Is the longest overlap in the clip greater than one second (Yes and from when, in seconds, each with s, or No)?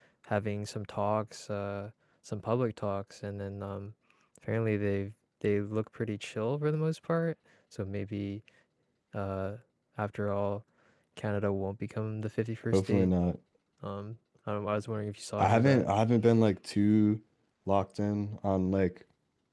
No